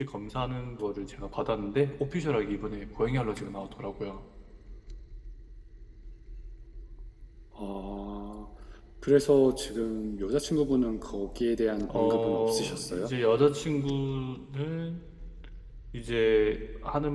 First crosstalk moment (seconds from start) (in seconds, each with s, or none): 11.9 s